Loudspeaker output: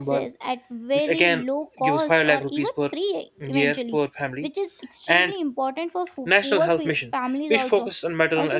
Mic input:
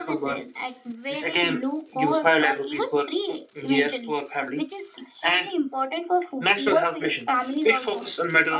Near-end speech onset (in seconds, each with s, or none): none